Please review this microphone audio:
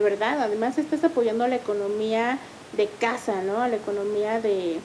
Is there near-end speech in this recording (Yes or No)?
No